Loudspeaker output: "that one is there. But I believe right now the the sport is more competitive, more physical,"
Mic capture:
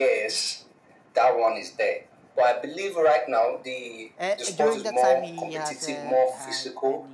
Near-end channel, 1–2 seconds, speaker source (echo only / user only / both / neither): echo only